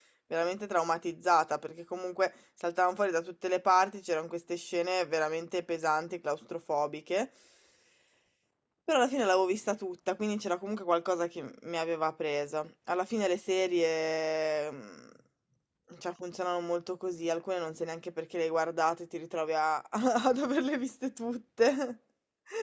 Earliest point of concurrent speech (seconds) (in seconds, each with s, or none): none